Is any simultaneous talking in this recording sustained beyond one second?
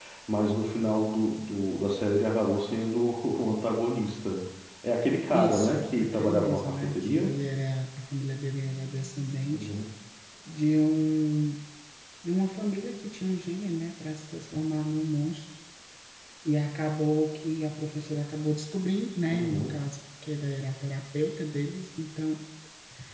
Yes, from 5.3 s

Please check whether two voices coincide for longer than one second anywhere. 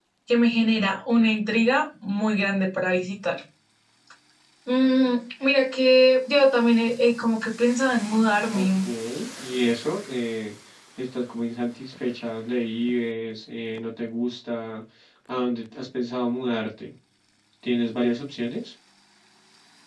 No

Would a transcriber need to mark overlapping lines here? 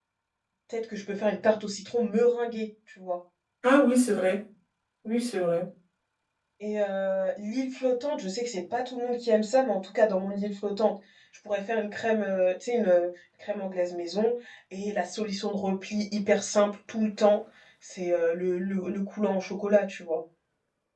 No

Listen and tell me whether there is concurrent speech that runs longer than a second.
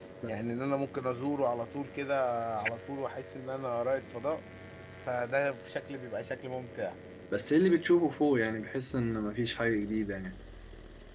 No

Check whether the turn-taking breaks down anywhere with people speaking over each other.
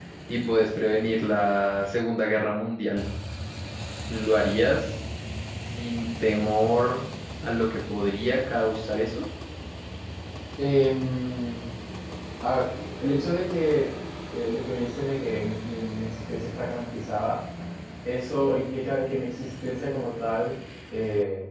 No

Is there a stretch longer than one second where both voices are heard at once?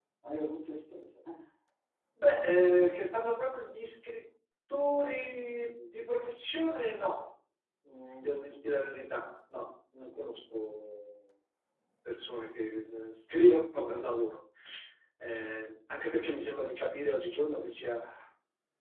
No

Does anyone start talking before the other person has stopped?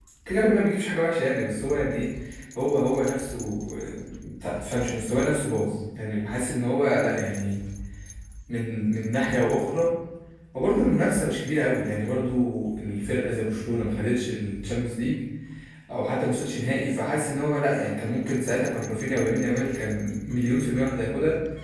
No

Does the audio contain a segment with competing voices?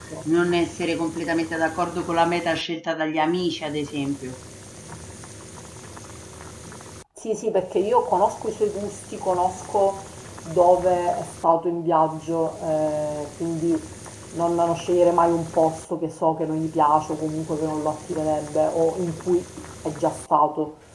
No

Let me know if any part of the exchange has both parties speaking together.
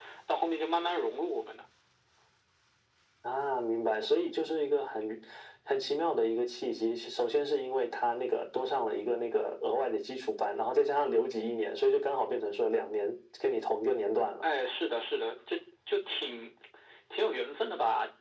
No

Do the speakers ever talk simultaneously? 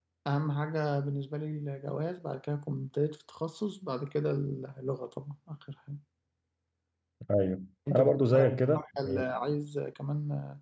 Yes, from 7.9 s

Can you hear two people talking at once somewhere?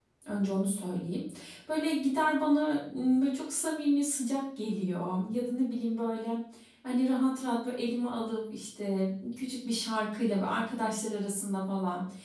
No

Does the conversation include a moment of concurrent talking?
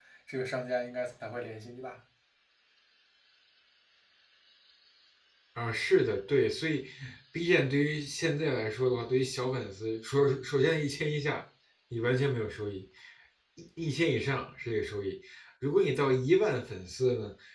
No

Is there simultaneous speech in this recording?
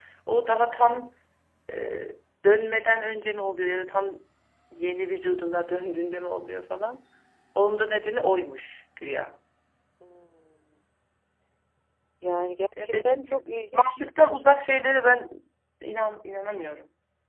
Yes, from 12.8 s

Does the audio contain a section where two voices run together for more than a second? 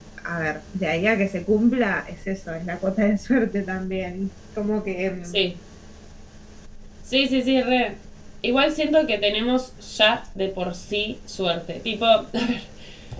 No

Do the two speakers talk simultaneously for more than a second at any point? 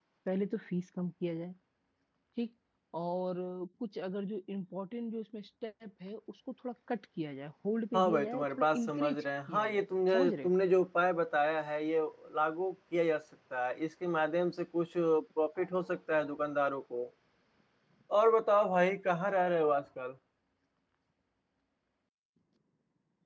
Yes, from 7.9 s

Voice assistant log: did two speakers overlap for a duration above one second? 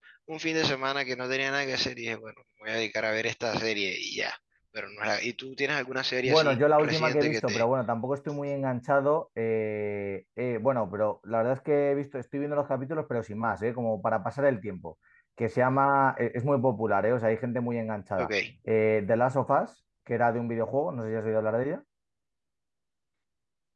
Yes, from 6.2 s

